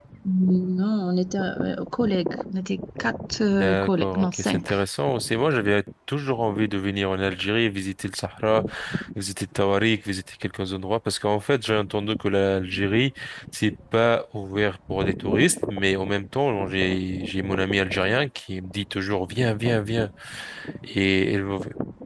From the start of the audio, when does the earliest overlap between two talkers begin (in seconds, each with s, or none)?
3.5 s